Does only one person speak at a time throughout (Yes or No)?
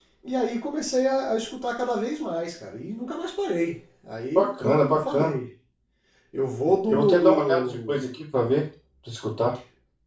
No